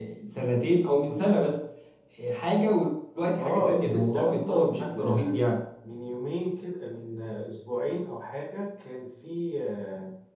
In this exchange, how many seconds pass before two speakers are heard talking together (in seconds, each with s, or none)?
3.4 s